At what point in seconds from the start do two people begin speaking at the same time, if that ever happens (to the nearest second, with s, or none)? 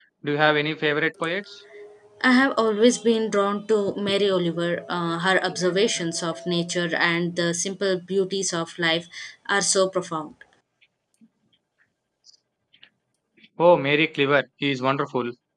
none